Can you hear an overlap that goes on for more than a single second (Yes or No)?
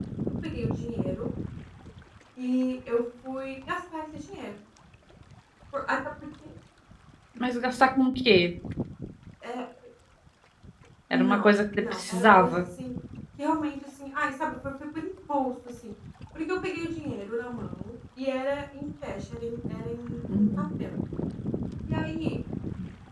Yes